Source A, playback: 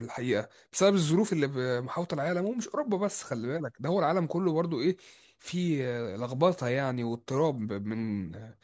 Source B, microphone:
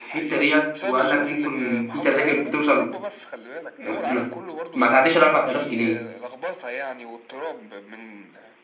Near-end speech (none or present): present